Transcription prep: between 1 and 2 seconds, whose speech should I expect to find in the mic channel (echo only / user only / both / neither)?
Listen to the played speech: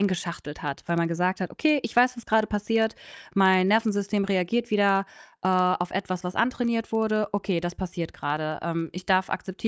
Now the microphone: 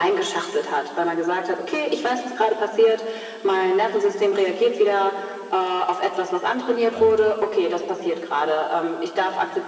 echo only